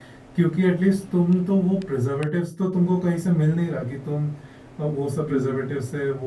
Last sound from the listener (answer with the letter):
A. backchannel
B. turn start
A